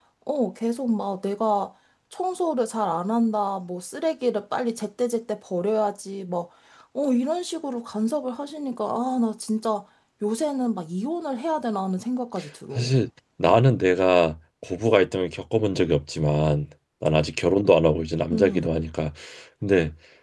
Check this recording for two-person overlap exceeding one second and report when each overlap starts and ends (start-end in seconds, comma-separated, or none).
none